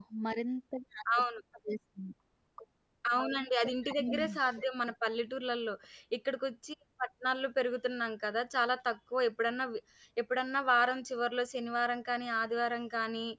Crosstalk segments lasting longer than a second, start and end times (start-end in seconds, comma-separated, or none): none